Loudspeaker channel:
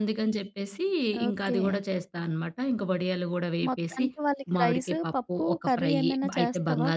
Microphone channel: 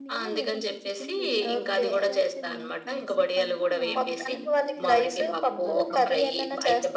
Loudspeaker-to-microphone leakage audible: Yes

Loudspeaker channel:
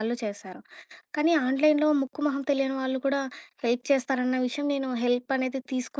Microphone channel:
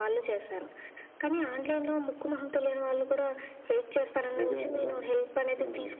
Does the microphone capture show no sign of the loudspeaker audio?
No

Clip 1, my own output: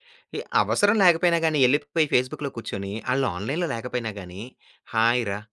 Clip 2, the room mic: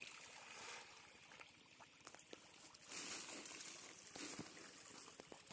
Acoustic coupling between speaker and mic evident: No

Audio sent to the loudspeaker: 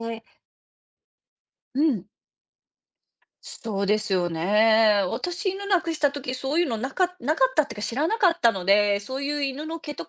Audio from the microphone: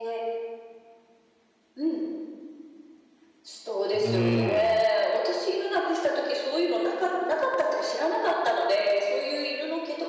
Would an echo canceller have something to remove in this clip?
Yes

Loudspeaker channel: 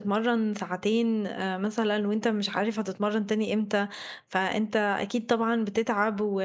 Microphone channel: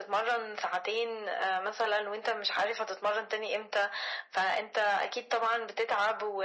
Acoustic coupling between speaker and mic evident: Yes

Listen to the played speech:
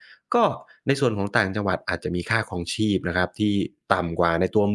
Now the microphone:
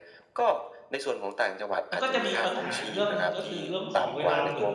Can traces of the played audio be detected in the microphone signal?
Yes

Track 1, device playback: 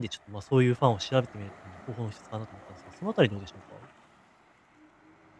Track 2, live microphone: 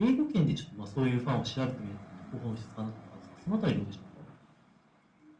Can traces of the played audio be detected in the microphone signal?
Yes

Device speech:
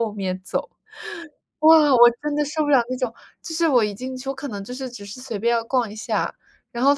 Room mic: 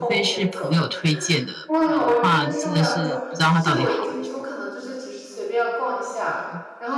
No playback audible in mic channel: No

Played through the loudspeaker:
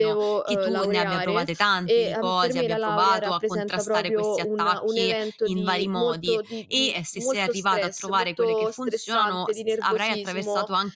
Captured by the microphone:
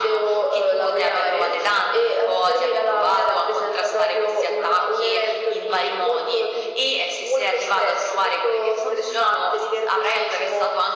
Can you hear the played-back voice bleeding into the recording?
Yes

